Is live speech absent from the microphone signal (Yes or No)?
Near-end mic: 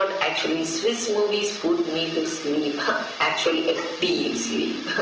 Yes